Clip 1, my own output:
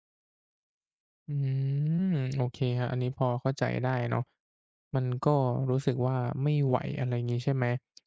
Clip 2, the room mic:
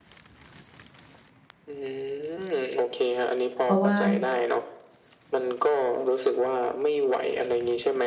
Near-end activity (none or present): present